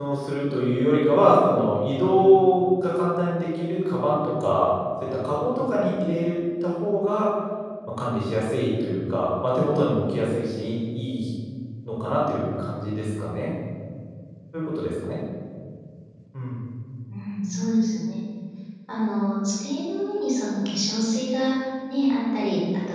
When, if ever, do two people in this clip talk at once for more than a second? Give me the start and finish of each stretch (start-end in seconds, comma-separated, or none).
none